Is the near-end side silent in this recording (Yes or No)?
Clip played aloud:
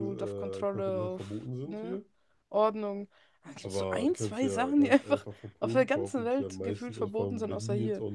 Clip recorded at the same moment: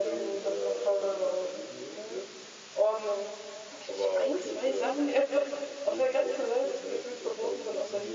Yes